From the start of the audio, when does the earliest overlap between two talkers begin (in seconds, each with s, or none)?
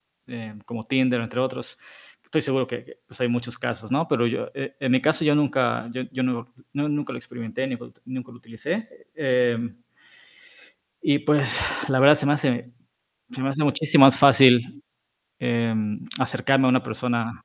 none